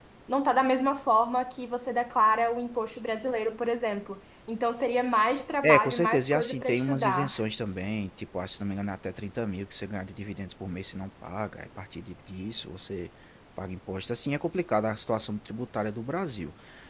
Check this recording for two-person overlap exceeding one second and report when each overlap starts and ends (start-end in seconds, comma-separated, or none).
5.6-7.4